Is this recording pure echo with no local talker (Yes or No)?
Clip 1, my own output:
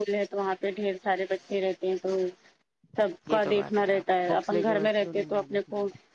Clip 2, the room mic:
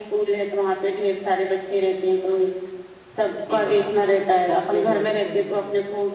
Yes